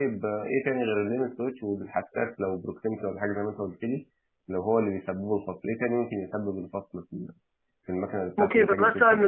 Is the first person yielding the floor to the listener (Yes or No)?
Yes